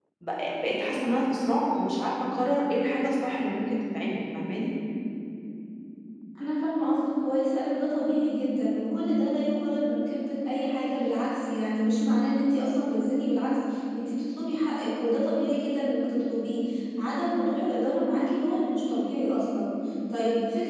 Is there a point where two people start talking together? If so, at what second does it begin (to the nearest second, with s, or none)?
none